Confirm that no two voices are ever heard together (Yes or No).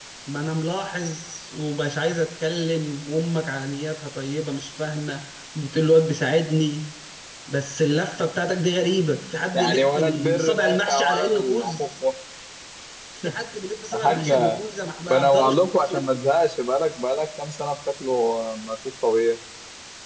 No